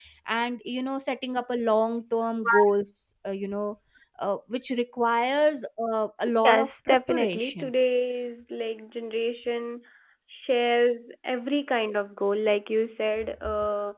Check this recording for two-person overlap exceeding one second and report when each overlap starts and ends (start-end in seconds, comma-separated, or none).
6.4-7.7